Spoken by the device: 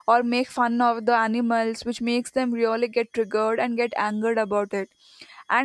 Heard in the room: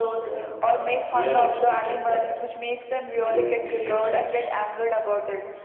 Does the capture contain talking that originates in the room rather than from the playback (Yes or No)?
Yes